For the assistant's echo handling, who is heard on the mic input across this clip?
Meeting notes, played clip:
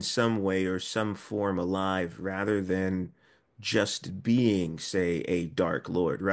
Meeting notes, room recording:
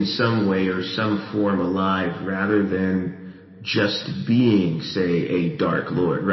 echo only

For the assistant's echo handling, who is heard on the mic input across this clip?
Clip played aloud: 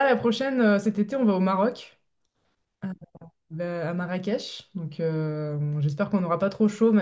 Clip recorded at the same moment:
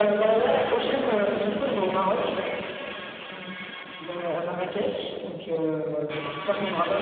echo only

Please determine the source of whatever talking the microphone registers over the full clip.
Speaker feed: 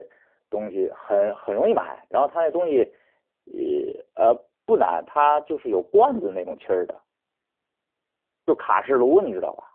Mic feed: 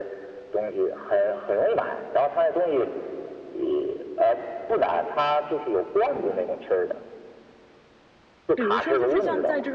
both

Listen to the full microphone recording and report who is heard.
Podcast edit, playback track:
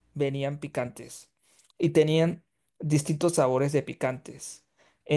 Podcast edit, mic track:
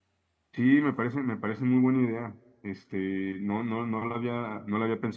user only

